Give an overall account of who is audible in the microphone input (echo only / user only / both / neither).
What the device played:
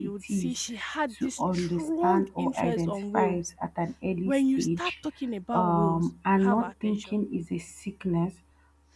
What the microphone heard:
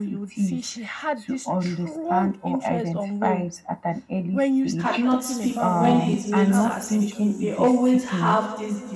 both